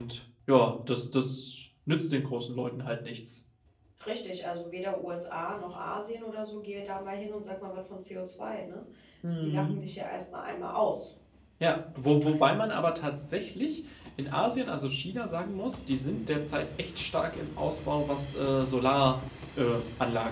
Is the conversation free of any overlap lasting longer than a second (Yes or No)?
Yes